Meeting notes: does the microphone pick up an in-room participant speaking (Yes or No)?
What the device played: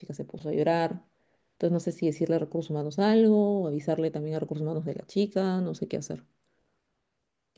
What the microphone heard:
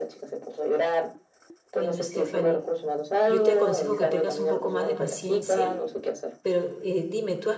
Yes